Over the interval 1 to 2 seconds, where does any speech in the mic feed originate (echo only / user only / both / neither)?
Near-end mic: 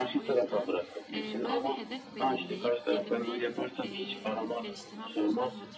both